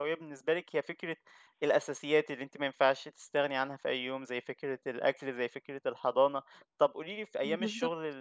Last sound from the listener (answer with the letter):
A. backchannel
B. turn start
A